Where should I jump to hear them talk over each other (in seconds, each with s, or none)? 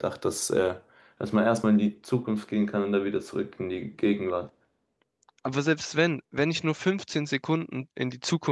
none